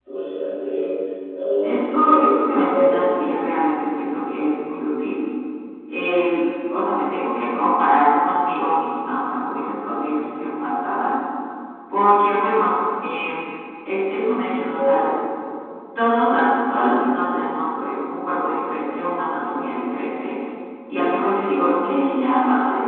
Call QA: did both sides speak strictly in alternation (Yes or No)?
No